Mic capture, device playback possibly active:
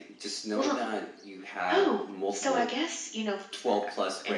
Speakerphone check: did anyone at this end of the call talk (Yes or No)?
No